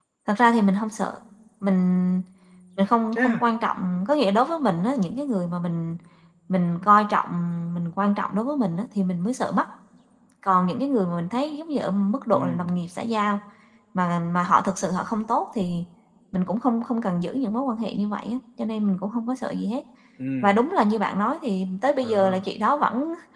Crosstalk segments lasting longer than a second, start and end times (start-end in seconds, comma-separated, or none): none